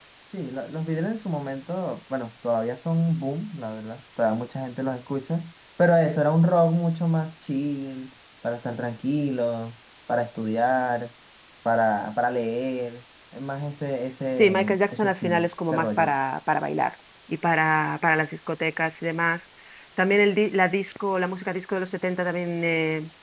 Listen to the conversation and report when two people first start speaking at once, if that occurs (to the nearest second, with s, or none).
14 s